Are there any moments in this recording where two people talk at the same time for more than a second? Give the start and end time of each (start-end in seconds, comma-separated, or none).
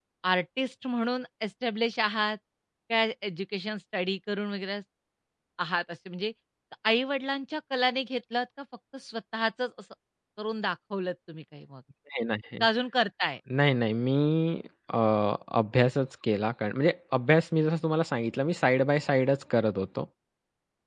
none